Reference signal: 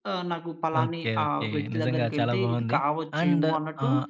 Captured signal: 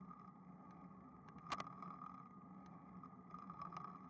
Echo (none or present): none